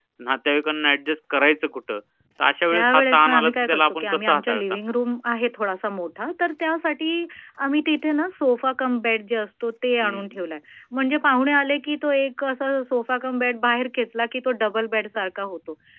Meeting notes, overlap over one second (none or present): present